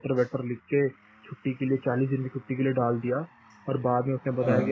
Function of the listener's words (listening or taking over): listening